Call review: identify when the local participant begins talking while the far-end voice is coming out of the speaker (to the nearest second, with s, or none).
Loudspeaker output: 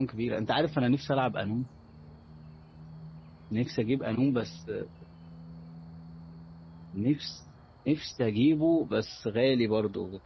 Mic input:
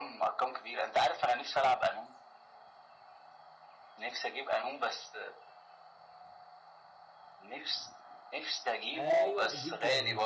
9 s